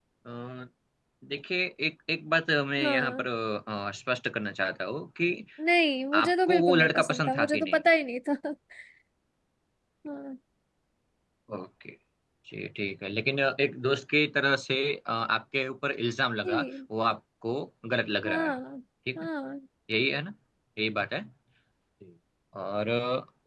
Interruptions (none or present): present